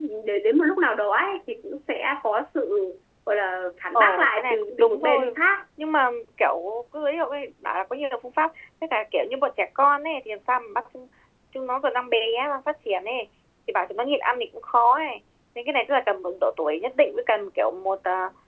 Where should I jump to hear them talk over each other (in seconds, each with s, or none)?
4.0 s